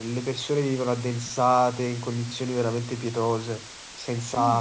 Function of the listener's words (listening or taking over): listening